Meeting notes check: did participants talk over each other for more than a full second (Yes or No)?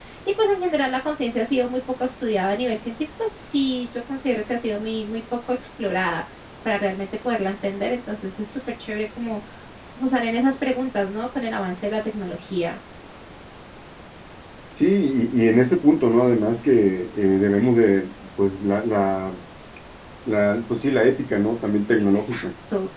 No